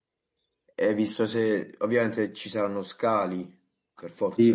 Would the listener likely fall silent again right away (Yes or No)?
No